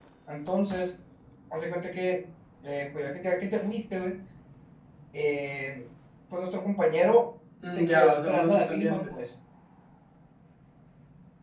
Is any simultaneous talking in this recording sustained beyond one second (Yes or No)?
Yes